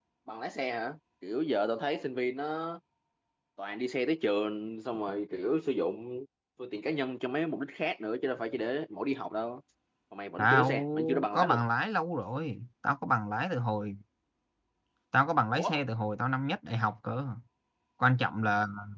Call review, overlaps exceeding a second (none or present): present